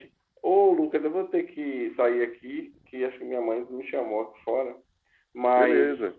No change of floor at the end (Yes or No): Yes